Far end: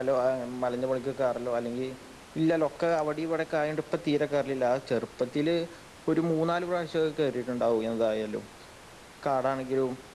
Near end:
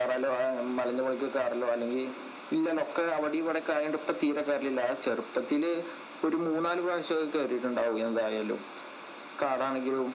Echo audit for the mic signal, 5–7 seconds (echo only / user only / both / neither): echo only